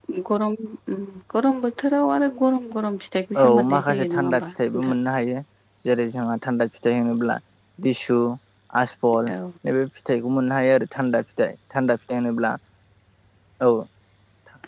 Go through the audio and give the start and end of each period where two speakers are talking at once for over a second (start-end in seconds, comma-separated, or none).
3.4-5.0